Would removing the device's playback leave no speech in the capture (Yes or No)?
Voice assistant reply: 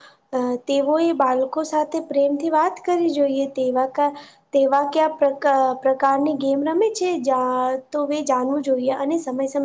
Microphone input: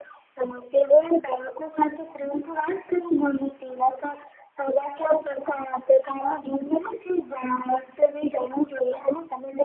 Yes